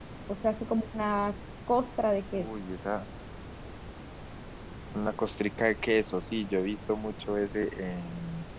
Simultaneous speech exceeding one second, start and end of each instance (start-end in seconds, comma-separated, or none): none